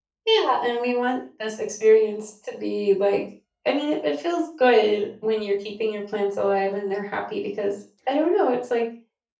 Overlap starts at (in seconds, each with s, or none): none